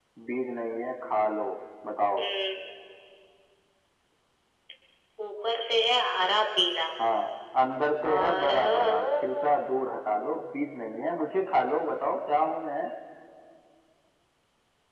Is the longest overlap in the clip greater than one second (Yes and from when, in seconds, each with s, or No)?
Yes, from 8.0 s